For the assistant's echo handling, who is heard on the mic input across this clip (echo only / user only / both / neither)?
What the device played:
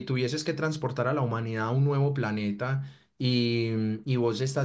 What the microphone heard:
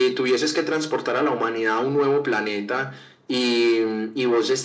echo only